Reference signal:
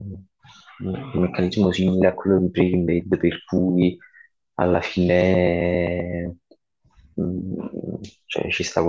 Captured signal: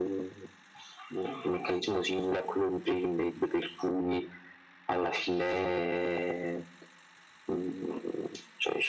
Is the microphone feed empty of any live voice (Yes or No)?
Yes